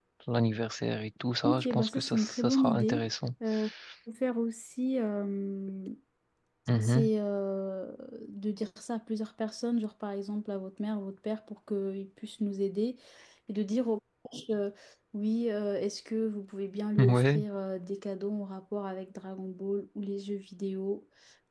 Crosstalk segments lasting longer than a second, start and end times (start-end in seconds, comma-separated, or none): 1.4-3.0